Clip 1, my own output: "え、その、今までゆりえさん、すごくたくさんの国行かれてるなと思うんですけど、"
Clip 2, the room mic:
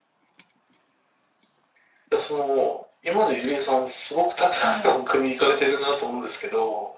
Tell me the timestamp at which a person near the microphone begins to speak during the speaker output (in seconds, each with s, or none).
4.5 s